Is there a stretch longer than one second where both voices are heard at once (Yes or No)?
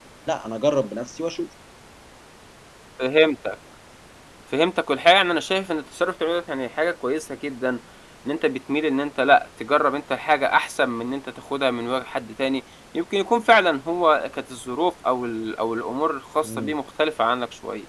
No